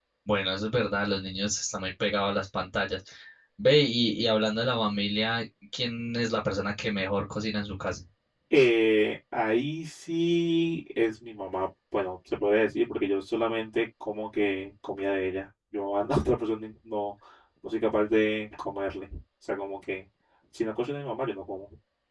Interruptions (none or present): none